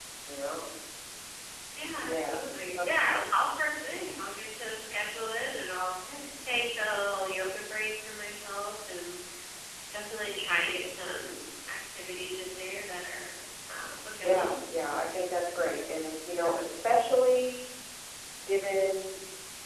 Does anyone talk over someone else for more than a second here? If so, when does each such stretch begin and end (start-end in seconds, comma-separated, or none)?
2.0-3.3